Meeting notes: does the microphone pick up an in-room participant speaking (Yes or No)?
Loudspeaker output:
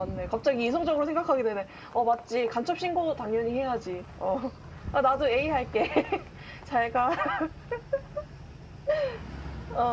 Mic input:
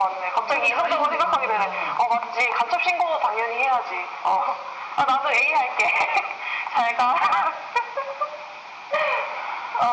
Yes